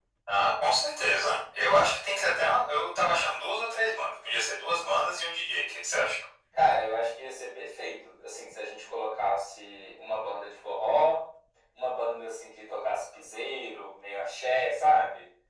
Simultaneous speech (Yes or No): No